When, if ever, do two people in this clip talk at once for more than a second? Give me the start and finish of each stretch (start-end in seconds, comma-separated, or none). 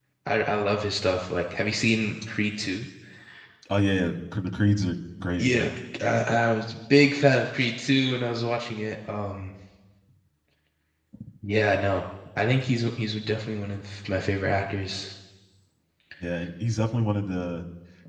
none